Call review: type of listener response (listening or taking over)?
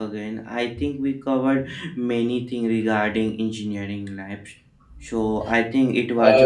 taking over